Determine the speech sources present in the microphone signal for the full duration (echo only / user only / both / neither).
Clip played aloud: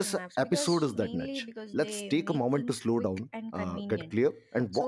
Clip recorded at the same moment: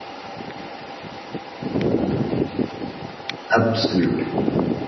user only